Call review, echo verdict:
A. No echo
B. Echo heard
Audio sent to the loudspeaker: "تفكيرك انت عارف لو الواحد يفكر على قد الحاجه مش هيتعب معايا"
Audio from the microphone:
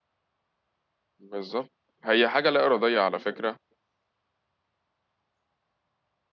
A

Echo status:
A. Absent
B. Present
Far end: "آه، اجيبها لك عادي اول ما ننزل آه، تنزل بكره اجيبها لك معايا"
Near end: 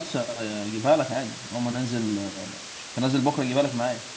B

